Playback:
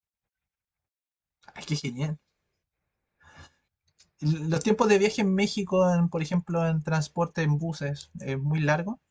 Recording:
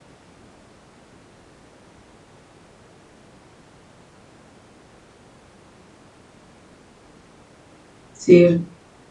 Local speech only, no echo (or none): Sí.